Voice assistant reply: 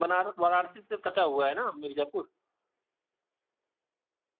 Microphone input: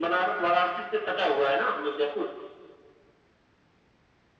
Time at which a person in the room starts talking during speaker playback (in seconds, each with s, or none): none